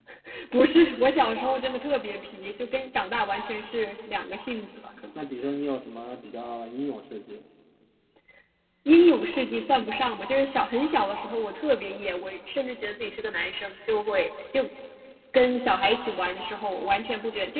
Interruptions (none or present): none